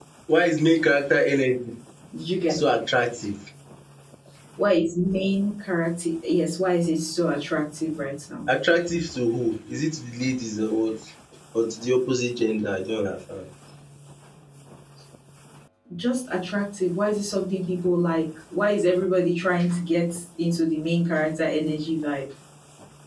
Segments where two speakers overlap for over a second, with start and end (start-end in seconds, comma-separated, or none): none